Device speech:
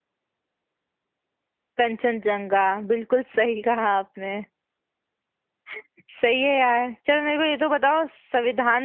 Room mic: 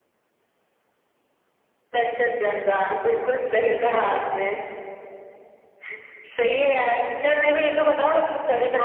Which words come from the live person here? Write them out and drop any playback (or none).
none